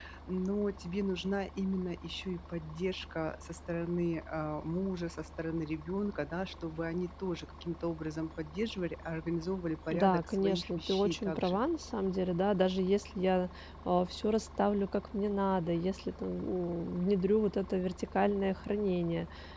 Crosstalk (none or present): present